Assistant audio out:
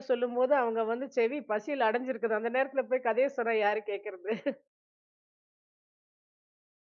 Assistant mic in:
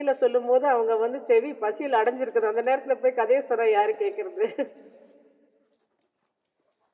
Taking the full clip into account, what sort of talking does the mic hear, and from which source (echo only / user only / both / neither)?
echo only